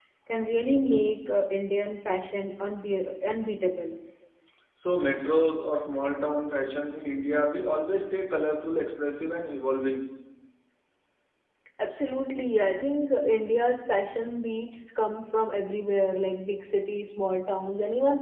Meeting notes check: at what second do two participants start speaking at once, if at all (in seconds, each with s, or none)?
none